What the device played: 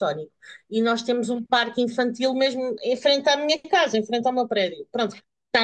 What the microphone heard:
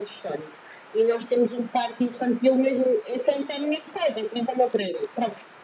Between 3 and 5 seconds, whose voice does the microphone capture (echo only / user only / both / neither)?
echo only